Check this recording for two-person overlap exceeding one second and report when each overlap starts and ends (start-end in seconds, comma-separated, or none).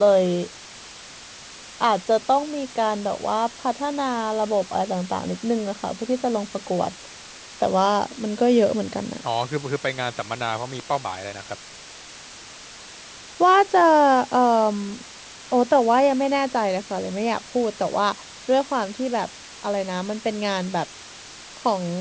none